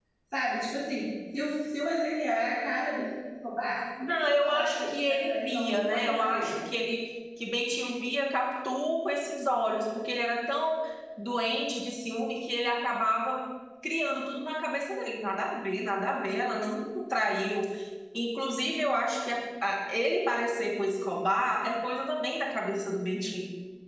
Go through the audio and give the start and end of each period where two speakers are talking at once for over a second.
4.1-6.6

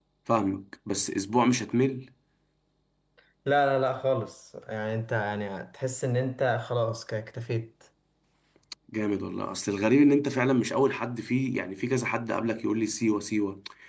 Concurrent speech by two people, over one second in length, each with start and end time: none

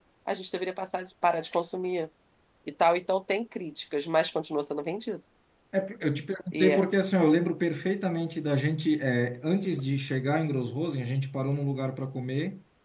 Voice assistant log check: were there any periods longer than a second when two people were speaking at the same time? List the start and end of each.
none

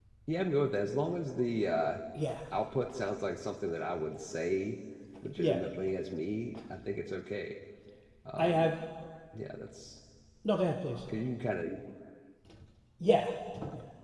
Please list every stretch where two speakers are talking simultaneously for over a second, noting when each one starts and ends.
none

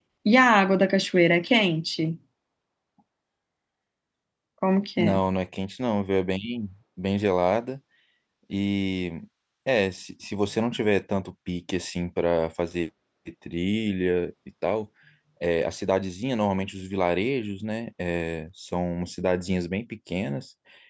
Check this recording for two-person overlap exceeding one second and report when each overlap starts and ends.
none

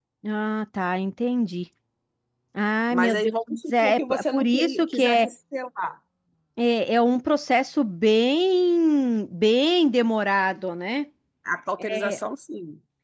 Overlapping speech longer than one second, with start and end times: 2.9-5.3

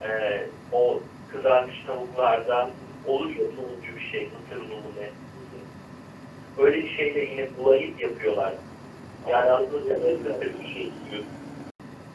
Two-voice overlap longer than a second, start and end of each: 9.3-10.7

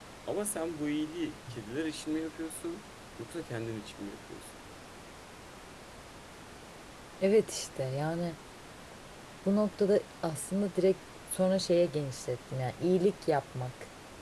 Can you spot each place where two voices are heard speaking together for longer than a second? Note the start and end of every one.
none

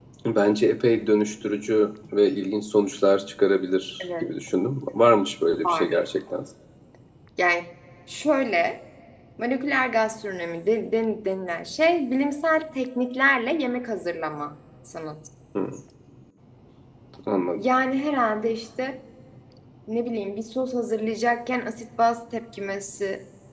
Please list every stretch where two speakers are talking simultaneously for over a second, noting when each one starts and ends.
none

